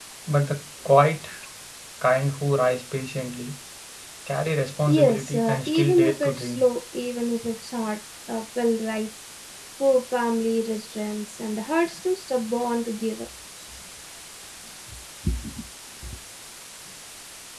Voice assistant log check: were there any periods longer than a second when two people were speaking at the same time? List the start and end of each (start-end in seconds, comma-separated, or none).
4.9-6.6